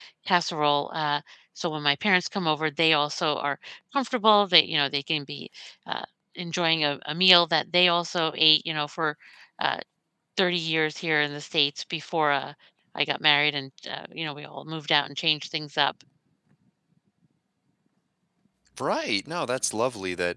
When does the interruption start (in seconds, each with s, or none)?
none